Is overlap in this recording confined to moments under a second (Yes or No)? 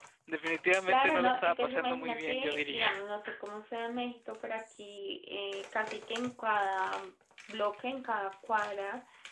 No